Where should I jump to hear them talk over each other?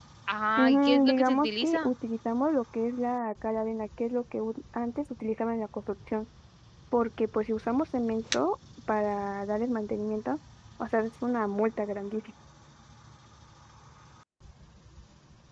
0.6 s

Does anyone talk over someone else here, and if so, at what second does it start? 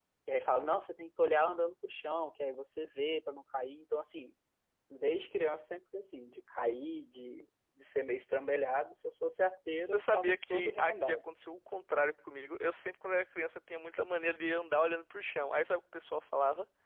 9.8 s

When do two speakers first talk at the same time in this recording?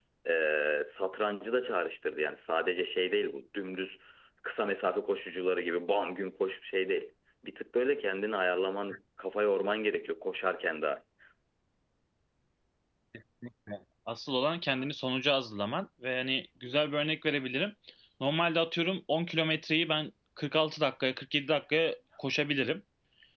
none

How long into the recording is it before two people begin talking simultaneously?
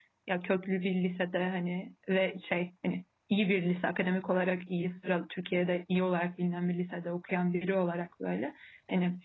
none

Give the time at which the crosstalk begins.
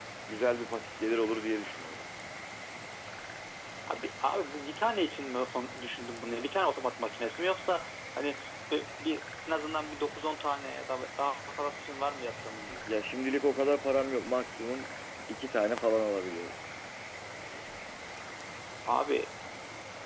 none

